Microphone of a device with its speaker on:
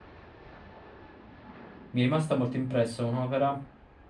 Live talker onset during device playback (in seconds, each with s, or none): 1.9 s